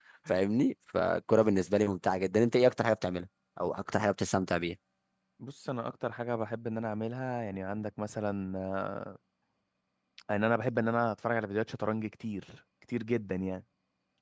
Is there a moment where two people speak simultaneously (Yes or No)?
No